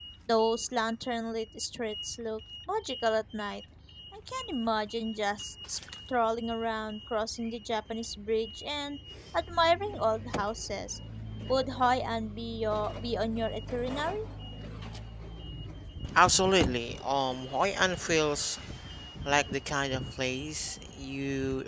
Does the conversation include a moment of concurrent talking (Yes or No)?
No